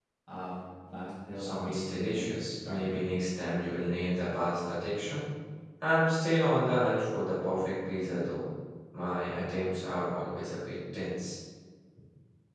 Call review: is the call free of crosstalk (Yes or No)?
No